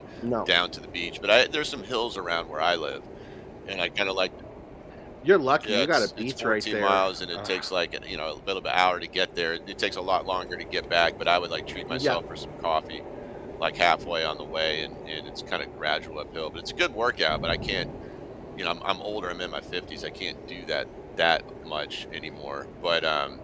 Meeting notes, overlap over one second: present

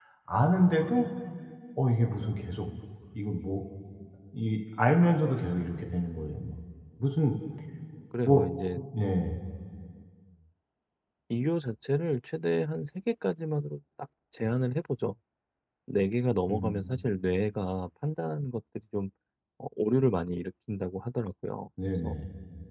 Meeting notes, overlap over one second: none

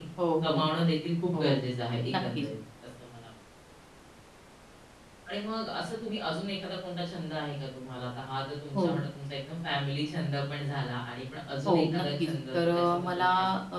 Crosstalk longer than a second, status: present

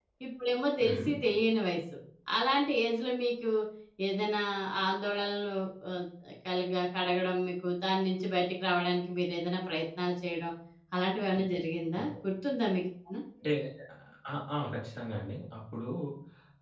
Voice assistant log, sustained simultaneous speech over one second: none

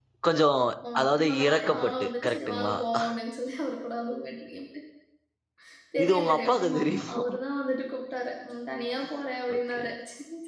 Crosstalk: present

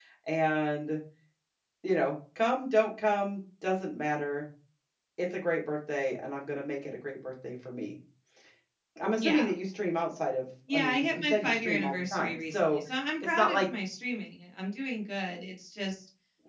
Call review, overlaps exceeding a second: present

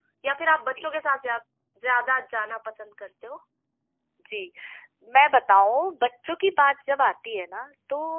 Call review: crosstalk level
none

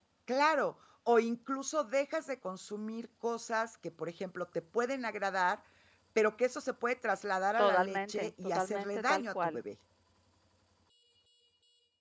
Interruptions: present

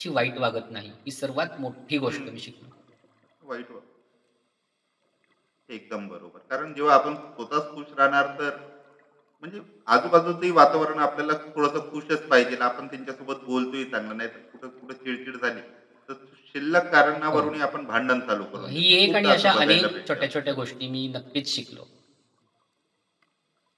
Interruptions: present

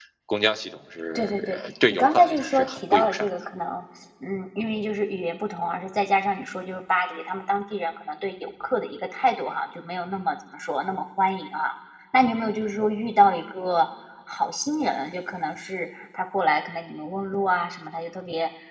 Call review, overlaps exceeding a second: present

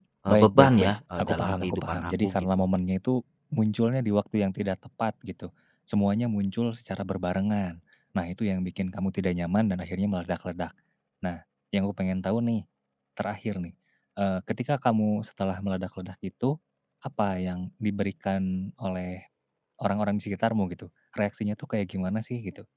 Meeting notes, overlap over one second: present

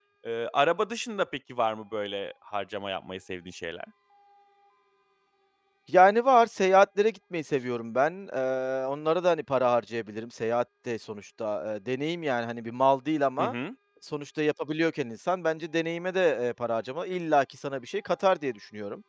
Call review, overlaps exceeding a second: none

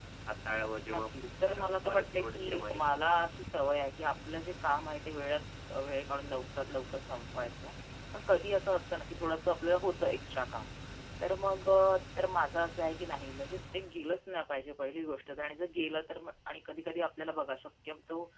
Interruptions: present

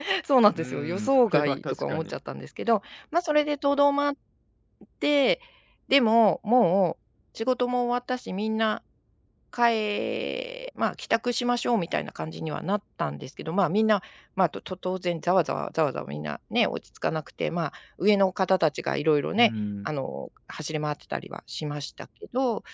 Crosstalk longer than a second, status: present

